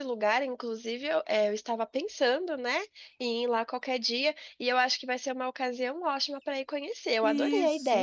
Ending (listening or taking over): taking over